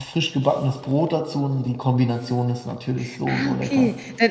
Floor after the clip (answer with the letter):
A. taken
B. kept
A